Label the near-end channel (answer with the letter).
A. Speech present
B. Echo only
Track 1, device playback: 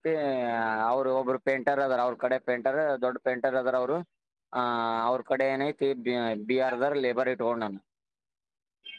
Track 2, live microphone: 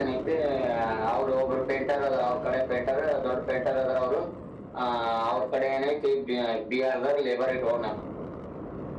B